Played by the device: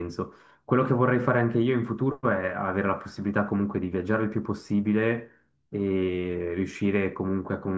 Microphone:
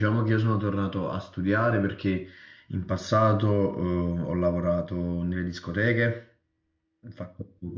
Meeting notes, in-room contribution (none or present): present